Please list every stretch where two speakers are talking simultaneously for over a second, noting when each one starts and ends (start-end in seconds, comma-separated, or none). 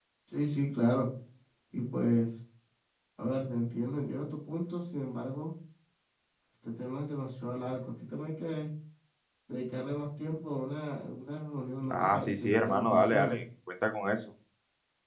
11.9-13.4